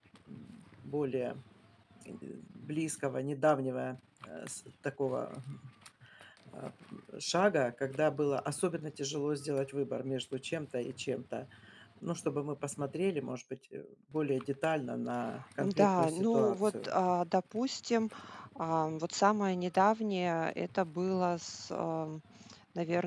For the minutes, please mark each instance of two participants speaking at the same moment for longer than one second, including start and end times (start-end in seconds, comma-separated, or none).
15.6-16.9